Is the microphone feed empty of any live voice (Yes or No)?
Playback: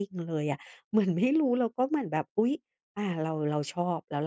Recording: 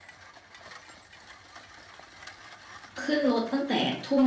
No